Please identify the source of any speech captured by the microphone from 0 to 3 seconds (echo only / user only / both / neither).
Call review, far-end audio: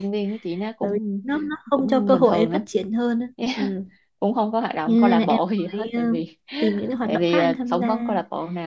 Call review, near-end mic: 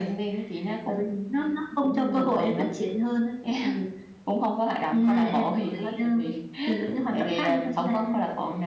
echo only